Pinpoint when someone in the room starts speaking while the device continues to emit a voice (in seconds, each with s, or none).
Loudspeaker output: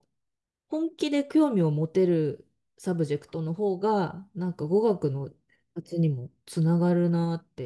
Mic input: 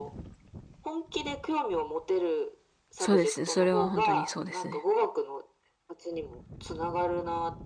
3.0 s